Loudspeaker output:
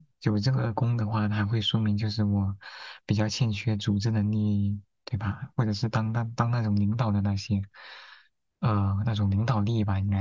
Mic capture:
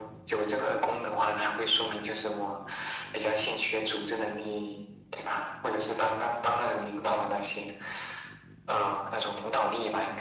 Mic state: echo only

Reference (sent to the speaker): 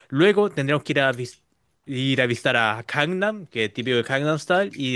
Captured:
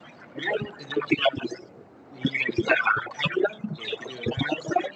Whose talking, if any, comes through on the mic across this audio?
echo only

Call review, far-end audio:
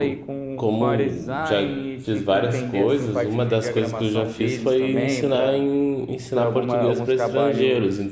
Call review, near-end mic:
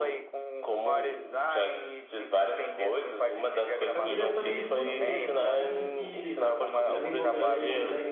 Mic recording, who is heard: both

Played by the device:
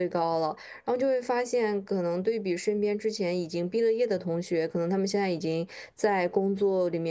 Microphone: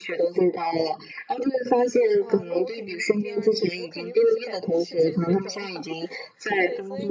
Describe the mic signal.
both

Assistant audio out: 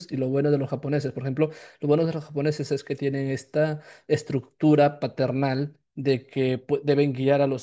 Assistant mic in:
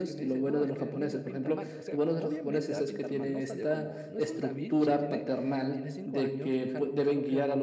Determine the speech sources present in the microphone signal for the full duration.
both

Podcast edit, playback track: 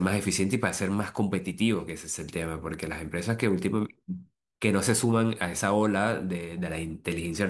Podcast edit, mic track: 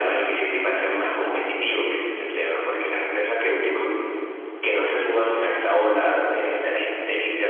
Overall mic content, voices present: echo only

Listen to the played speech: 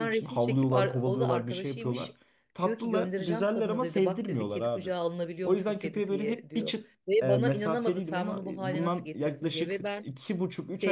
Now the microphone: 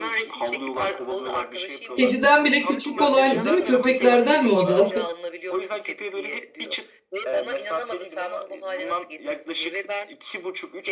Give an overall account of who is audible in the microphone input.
both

